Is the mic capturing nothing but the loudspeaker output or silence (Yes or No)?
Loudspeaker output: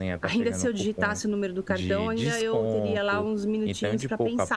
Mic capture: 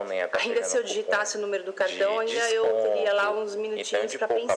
Yes